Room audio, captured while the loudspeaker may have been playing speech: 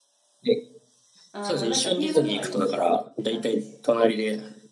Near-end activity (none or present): present